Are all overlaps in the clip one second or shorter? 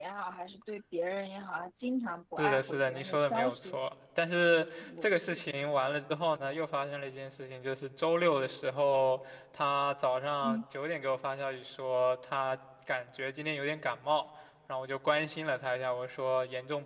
No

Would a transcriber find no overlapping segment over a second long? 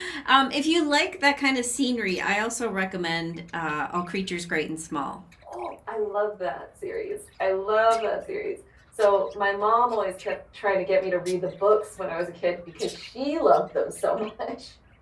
Yes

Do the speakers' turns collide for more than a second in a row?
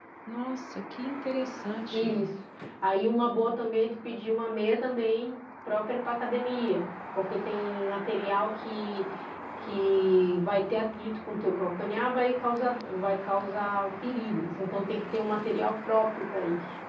No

